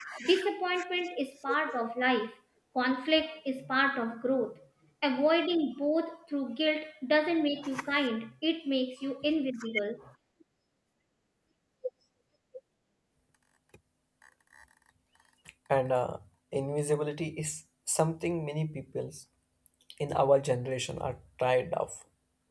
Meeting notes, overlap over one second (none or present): none